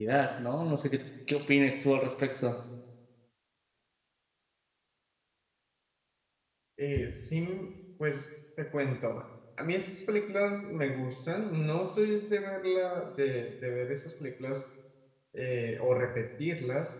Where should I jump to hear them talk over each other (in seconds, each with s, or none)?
none